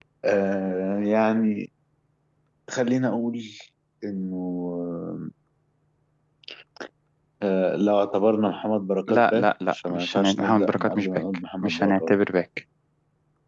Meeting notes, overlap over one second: present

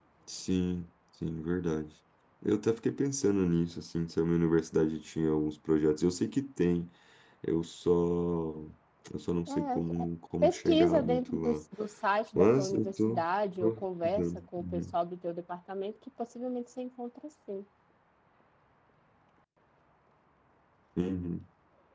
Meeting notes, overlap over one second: present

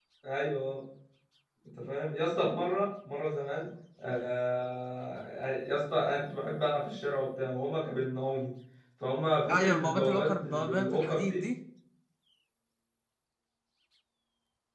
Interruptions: present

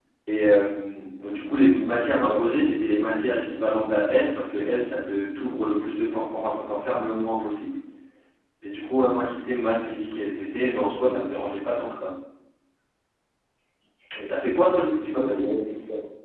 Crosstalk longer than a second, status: none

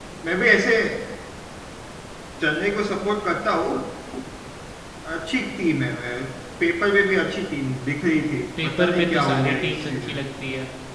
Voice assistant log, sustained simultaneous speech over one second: present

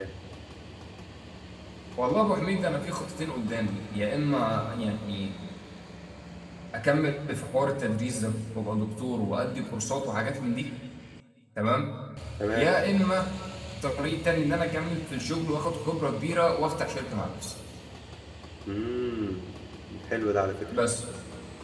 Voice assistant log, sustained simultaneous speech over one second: none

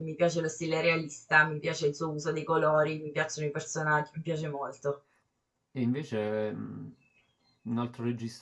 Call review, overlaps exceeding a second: none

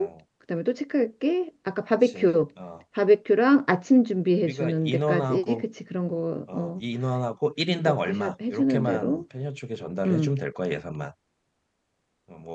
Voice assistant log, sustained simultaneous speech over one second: present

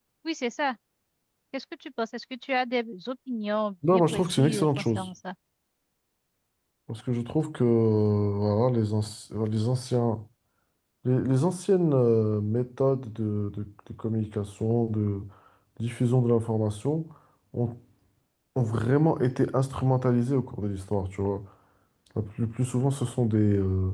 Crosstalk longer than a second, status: present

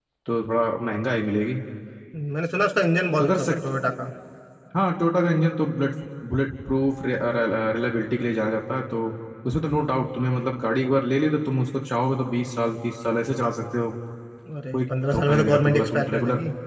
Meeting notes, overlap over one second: present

